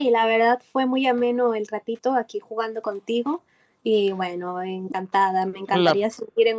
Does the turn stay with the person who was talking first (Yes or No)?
Yes